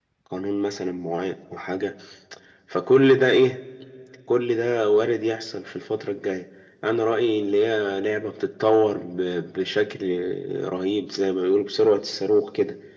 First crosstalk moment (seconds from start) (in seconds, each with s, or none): none